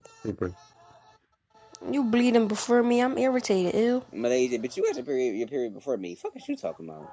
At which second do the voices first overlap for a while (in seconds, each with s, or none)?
none